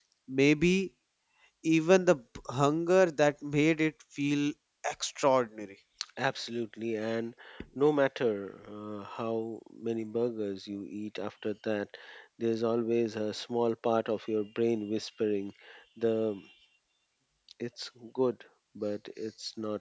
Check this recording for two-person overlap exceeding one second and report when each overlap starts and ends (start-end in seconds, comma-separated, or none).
none